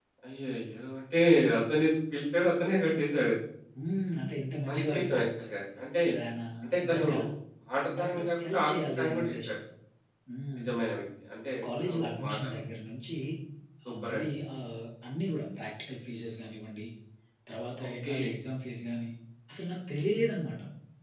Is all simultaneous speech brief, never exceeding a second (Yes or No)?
No